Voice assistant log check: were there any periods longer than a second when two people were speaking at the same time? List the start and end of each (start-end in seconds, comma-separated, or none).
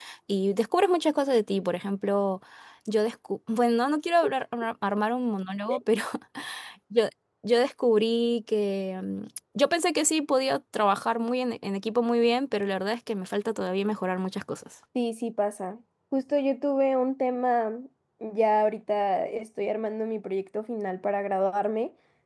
none